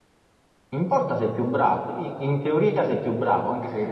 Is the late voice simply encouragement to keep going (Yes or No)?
Yes